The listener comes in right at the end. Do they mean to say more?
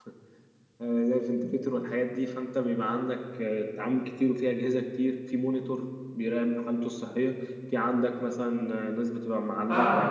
Yes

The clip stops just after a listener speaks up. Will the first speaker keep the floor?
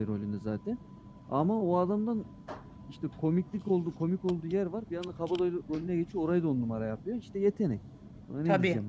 No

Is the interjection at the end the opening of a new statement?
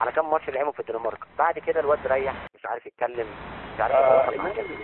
Yes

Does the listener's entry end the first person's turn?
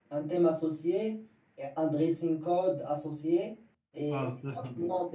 No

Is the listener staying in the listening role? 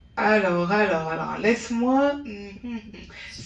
Yes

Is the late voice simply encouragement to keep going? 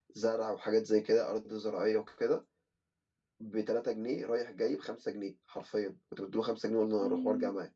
Yes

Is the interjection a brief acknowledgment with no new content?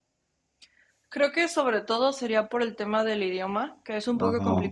Yes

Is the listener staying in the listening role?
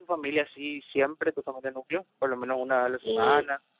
No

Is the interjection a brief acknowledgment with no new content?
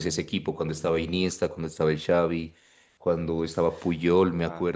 Yes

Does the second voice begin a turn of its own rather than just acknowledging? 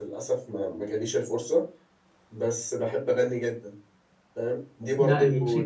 No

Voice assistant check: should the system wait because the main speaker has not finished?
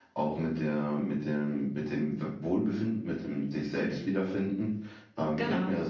Yes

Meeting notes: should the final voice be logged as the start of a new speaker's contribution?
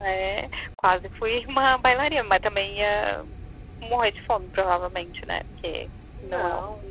No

